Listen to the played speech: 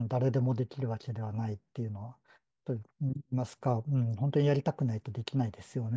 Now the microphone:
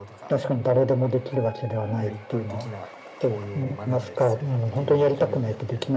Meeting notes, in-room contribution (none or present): present